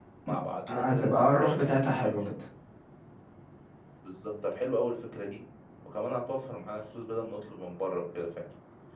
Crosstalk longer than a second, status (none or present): present